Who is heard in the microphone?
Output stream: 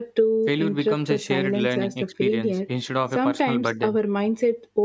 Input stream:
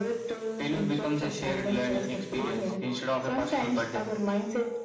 both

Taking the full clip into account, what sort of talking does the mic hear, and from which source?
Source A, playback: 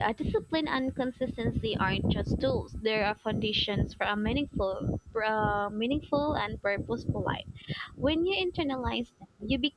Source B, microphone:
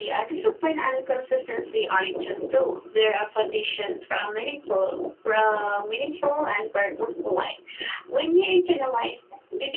echo only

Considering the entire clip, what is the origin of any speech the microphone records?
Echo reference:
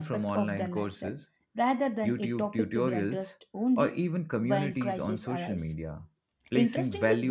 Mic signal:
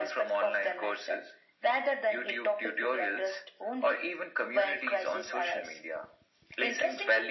echo only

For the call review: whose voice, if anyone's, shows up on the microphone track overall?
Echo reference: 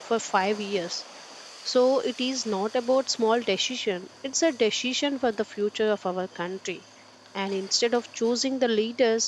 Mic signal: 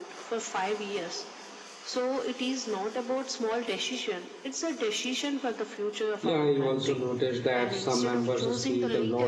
both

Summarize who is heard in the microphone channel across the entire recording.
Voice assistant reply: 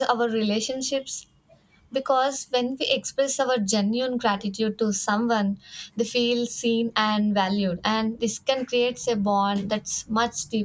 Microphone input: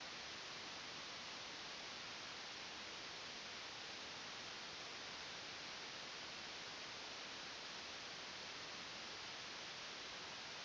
neither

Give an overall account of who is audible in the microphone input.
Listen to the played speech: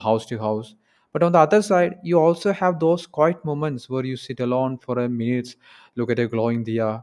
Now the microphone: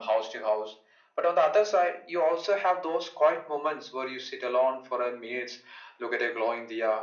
echo only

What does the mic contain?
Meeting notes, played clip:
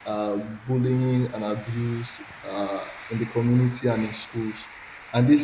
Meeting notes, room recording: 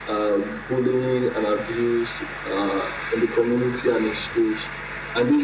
echo only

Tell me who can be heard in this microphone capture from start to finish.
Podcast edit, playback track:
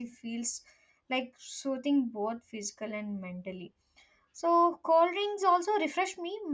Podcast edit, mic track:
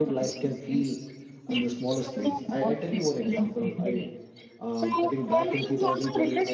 both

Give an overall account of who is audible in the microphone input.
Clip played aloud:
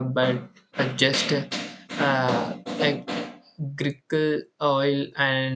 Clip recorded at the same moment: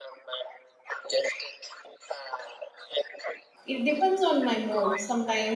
both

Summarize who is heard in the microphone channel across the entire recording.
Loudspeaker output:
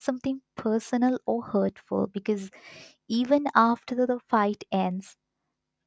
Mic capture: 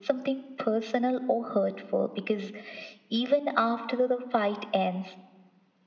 echo only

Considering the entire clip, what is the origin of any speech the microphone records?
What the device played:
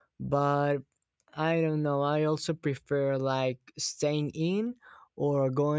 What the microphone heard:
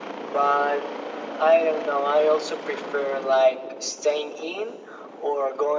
echo only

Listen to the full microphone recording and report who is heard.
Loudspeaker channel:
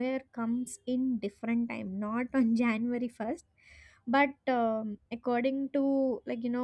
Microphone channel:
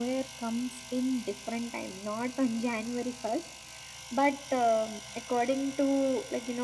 echo only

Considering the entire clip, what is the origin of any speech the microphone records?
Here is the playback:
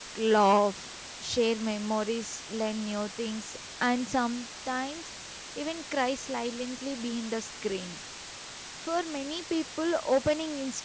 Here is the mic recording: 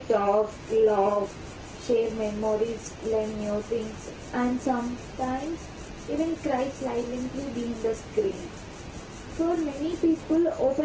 echo only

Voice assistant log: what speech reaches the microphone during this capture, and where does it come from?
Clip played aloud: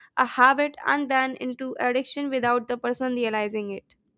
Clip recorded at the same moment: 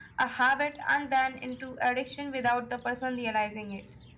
echo only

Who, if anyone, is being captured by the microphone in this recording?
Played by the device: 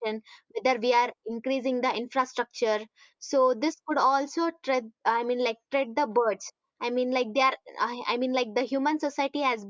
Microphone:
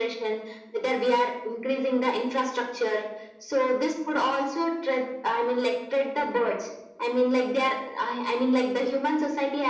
echo only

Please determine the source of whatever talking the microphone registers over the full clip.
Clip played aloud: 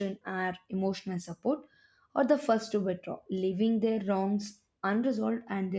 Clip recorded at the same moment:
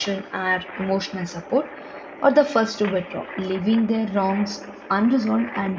echo only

